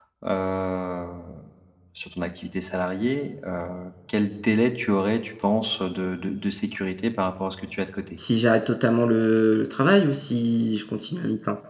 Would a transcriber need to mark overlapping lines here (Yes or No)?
No